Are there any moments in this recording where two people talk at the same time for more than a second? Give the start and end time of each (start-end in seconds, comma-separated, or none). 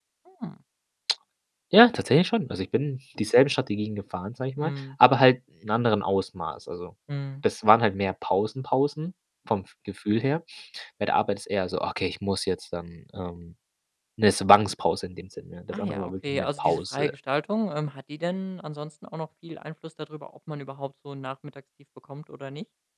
15.7-17.1